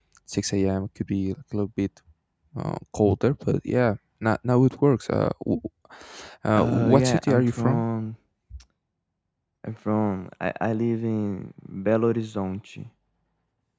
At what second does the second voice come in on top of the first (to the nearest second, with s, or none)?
7 s